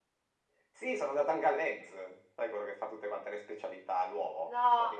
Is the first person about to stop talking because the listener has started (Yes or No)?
No